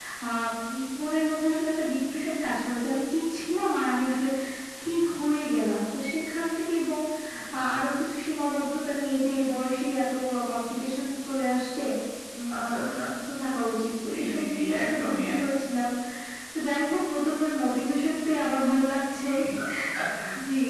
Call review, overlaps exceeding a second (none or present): present